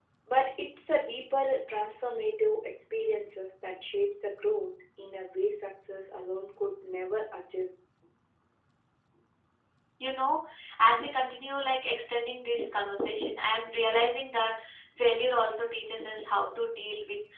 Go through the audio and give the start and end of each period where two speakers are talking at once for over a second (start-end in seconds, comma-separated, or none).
none